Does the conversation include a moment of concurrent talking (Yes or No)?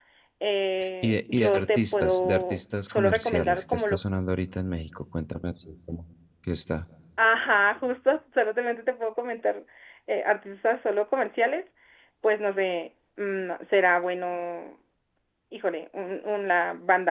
Yes